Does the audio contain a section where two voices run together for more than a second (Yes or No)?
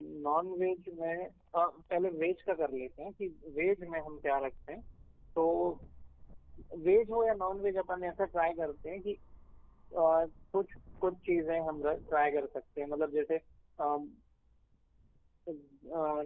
No